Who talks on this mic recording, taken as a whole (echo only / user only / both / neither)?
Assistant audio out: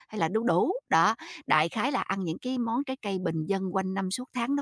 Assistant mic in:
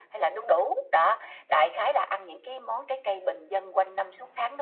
echo only